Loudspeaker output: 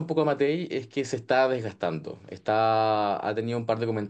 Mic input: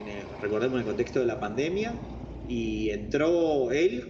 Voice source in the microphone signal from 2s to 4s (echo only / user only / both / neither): user only